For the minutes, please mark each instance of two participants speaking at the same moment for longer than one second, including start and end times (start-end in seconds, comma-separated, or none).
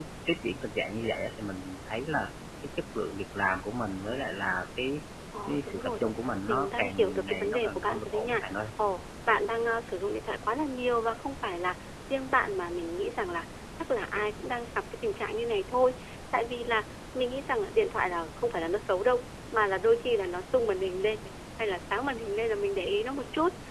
6.5-8.4